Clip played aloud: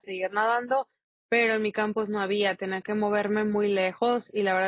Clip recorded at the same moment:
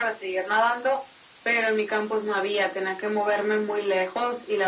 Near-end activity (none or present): none